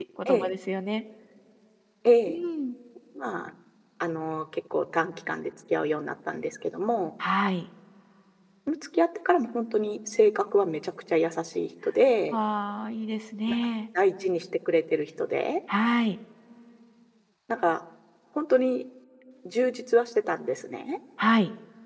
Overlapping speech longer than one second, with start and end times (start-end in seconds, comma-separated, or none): none